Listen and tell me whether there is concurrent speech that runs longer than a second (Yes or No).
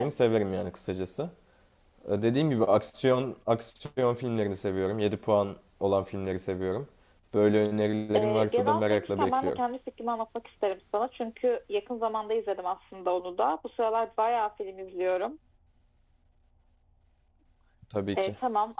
Yes